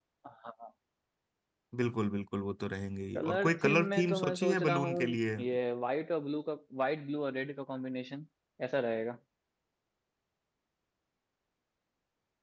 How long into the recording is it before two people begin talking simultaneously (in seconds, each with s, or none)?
3.2 s